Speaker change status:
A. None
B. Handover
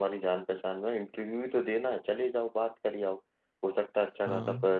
A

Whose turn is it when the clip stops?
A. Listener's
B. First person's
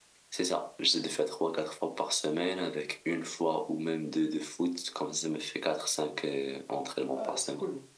A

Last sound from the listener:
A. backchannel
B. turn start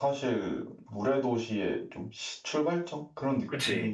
B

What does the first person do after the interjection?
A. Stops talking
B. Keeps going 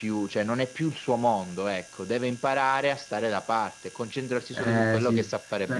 A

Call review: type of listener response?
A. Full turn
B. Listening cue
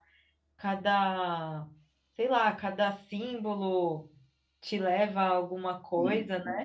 A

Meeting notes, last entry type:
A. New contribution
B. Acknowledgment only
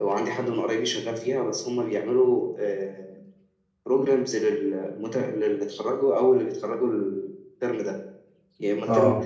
B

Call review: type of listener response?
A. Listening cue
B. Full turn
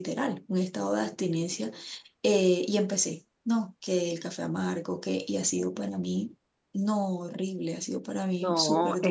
B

